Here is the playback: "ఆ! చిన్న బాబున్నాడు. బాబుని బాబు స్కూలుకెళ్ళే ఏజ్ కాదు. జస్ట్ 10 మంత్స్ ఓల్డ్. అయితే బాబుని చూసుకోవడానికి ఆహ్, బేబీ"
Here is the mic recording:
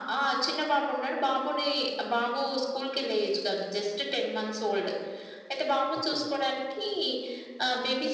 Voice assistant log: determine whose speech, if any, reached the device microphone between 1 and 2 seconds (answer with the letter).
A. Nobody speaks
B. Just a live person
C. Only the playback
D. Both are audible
C